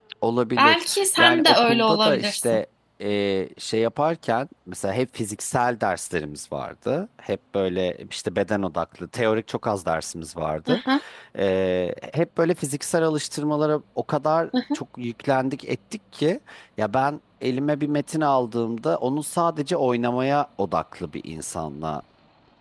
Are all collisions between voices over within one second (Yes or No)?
No